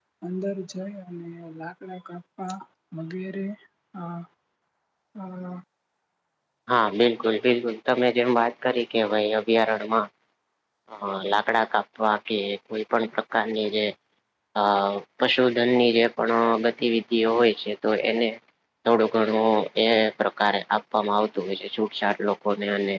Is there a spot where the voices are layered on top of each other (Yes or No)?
No